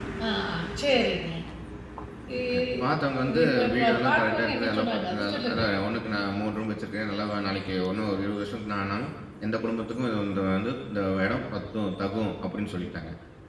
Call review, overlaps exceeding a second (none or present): present